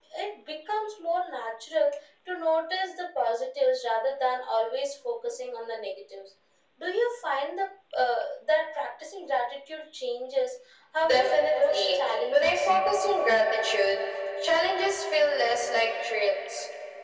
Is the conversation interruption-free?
No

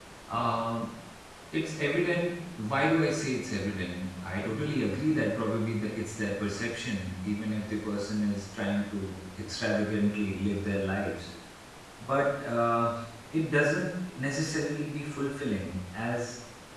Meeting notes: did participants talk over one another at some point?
No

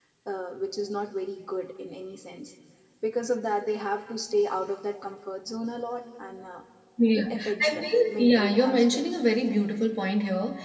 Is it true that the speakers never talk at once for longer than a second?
No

